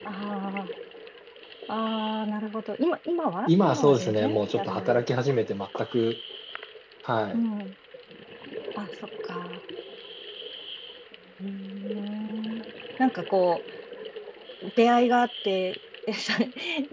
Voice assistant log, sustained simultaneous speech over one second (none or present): present